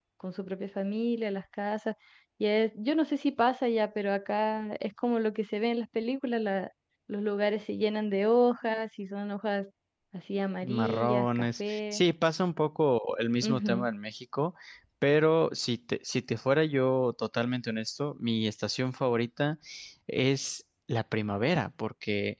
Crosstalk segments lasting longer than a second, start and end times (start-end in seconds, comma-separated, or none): 10.6-12.0